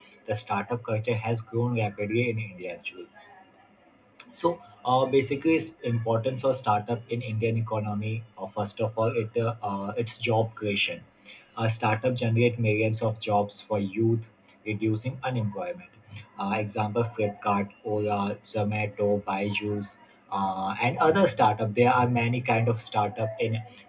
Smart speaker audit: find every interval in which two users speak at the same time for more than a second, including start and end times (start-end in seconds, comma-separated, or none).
none